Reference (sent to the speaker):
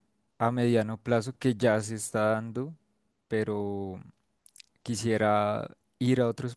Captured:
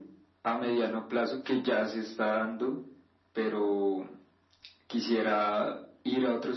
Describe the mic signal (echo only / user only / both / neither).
echo only